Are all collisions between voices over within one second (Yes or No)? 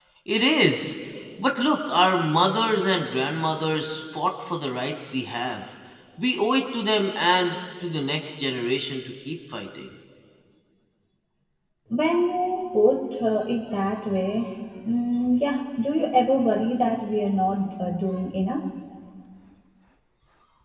Yes